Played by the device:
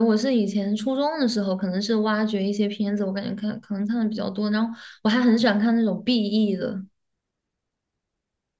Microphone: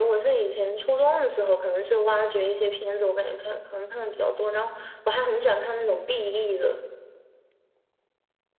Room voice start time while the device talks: none

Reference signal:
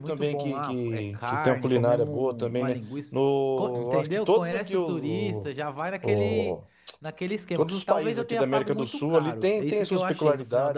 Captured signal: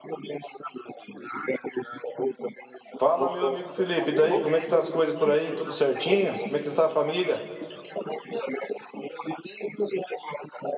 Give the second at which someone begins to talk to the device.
3.0 s

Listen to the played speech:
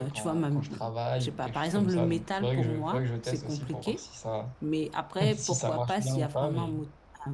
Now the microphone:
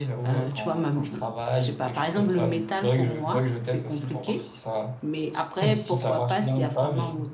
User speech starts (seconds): none

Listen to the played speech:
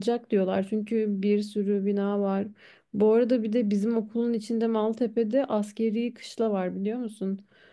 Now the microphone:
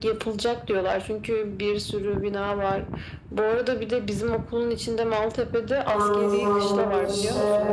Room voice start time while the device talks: 5.8 s

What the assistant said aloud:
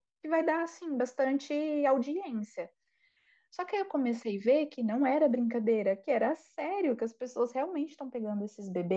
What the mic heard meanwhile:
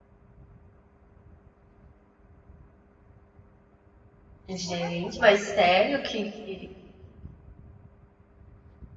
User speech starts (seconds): 4.5 s

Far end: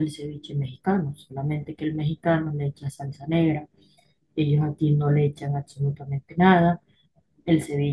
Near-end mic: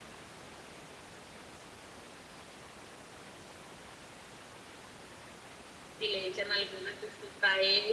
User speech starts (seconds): 6.0 s

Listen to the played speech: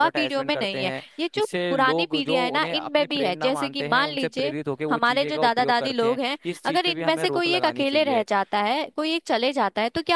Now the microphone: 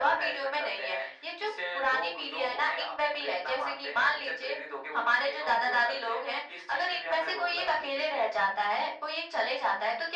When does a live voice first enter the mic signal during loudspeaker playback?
none

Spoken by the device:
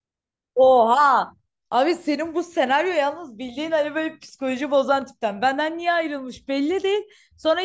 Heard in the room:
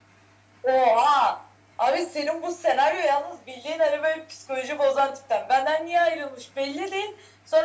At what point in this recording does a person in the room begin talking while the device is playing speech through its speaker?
none

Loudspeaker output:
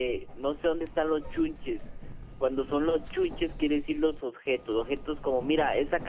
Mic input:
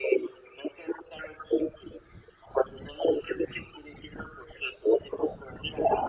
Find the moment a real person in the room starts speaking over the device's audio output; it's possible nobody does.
none

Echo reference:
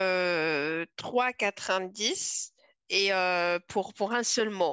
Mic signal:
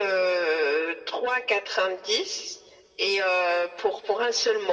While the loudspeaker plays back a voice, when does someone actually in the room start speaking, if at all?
none

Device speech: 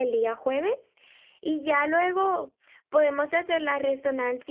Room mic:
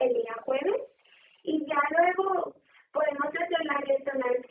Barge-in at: none

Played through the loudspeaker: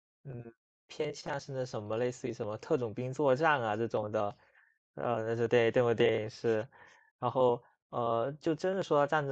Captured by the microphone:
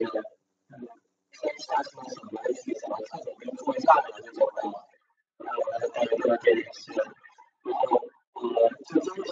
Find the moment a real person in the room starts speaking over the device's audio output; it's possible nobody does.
none

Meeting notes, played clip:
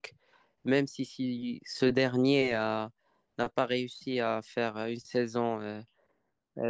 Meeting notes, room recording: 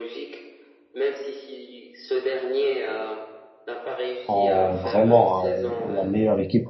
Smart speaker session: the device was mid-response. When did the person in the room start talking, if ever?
4.2 s

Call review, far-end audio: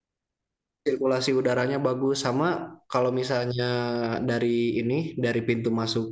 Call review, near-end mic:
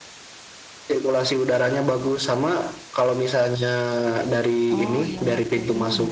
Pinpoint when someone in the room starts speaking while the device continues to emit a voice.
4.8 s

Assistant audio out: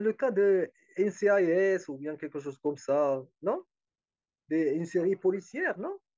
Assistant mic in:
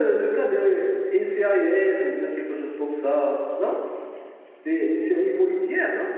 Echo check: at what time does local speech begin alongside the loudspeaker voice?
none

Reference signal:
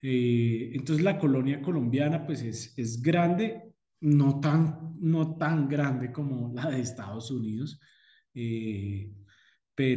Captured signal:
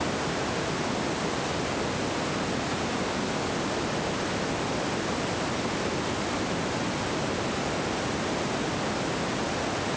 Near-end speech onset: none

